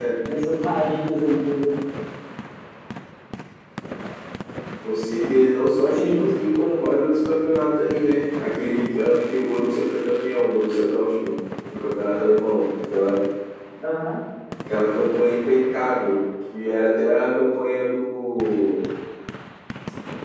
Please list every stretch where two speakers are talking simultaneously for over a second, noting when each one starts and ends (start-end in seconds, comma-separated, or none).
none